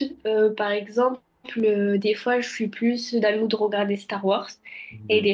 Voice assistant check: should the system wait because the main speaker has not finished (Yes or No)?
Yes